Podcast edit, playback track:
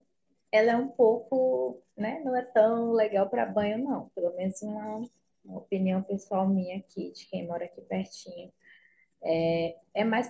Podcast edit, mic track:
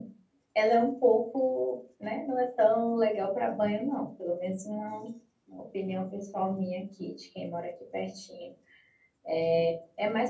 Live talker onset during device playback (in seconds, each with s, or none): none